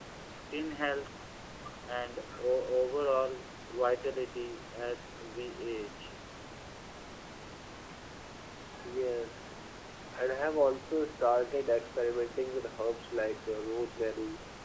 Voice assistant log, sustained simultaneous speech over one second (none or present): none